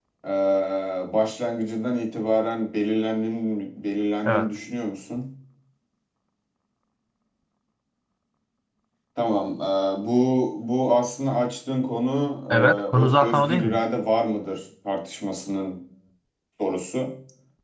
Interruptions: present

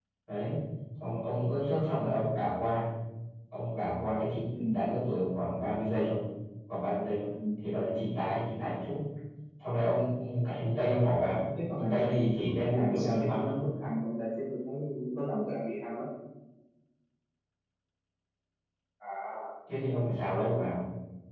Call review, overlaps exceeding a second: present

